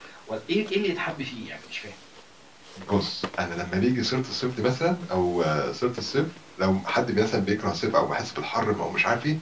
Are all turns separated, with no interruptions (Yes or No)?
Yes